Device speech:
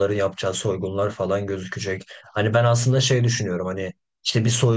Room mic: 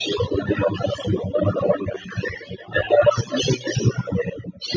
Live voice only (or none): none